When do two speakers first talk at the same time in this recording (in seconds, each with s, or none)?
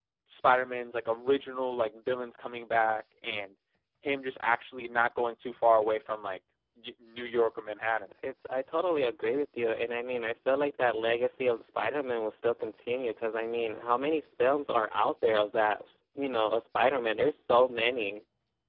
none